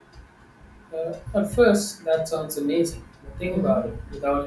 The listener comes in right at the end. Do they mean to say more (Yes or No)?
No